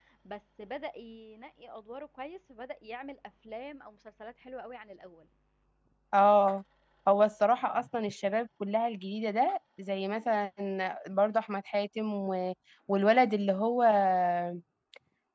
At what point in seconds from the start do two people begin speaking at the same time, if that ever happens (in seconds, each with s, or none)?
none